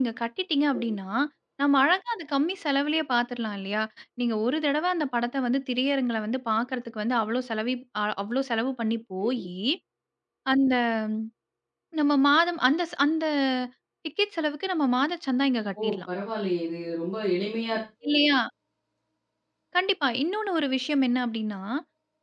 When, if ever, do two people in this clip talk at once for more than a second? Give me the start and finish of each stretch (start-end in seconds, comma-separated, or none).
none